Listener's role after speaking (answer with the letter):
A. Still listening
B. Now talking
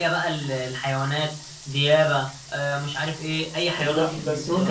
B